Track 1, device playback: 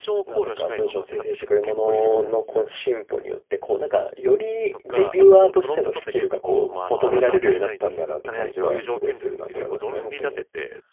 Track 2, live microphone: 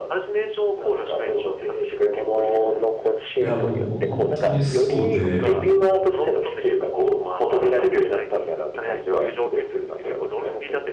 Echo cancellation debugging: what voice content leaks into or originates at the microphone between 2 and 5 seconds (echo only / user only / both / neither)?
both